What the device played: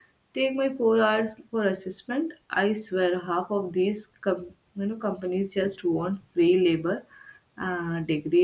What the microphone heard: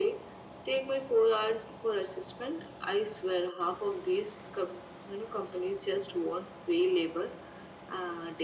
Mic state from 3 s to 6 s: echo only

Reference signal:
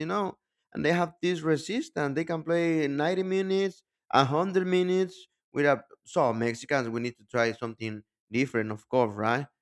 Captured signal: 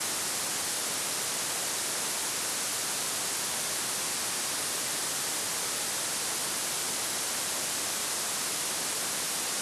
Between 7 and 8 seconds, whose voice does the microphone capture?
neither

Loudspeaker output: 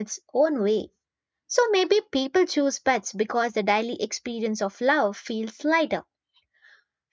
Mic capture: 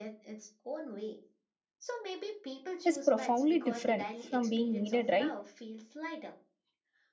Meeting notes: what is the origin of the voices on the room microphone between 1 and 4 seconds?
both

